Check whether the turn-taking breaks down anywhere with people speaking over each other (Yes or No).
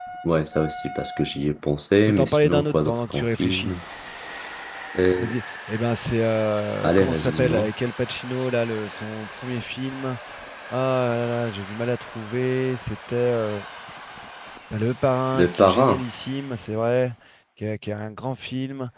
Yes